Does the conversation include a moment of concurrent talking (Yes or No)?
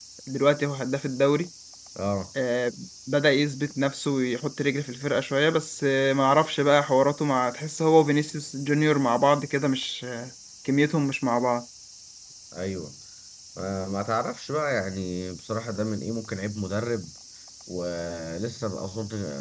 No